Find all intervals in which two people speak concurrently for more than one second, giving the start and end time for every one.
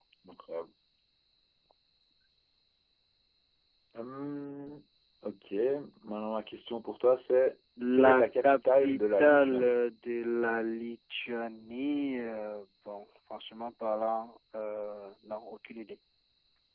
7.9-9.8

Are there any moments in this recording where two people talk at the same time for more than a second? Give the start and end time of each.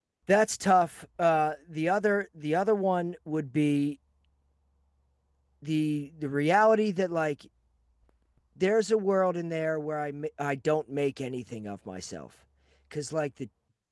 none

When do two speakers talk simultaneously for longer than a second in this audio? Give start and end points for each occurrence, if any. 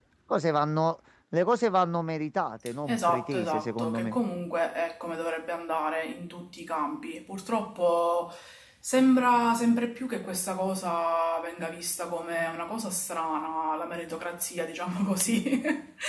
2.9-4.2

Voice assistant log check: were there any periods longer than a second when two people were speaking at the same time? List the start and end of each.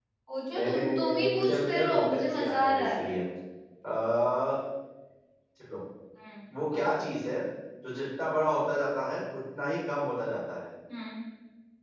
0.6-3.0

